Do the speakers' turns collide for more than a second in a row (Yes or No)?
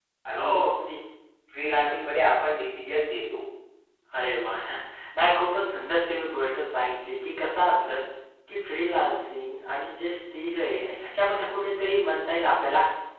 No